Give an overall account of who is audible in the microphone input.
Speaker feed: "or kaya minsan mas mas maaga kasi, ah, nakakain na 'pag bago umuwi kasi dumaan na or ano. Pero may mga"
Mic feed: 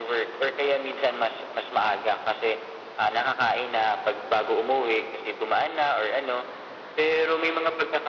echo only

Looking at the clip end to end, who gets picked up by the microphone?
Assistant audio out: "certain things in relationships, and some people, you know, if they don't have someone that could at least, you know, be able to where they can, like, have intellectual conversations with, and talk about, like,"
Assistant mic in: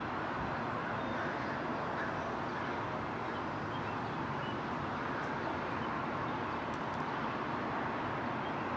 neither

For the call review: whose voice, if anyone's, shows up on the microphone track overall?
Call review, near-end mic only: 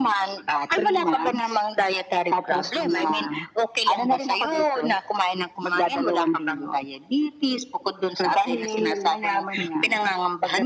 echo only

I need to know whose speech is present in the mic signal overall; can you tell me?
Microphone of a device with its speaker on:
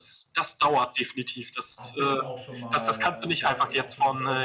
both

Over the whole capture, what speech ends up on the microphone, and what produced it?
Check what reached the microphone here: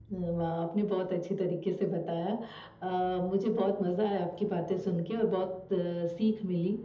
echo only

